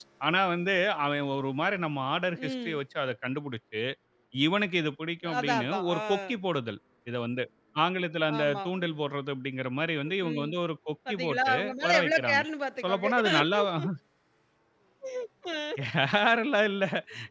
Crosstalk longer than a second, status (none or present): present